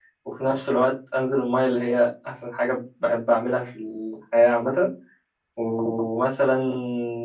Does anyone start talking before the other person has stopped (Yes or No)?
No